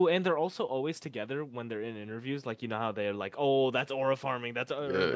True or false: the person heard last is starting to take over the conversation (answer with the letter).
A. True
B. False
A